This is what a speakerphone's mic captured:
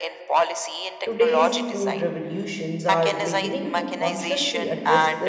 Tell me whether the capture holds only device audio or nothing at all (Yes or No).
No